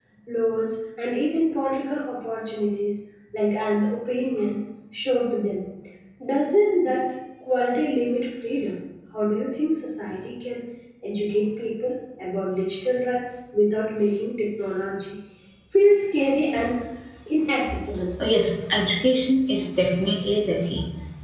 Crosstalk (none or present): none